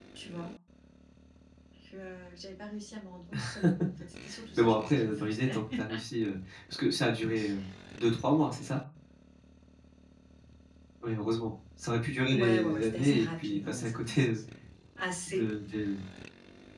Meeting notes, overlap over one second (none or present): present